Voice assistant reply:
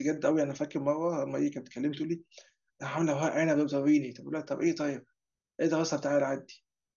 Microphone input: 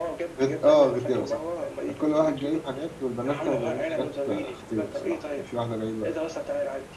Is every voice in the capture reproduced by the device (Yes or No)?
No